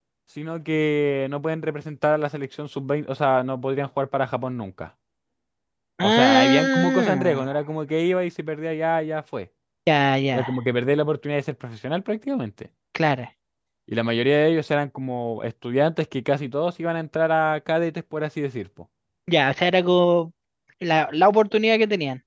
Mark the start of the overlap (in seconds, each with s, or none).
6.0 s